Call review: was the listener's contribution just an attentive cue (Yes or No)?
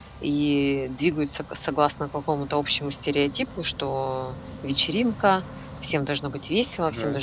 Yes